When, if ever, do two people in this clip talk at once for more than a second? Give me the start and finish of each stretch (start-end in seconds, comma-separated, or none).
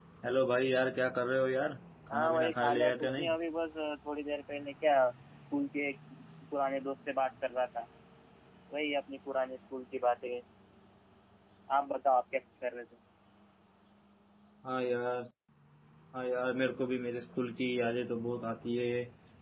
2.1-3.4